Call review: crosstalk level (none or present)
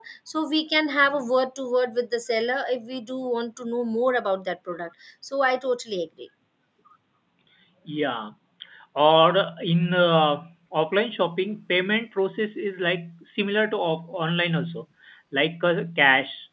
none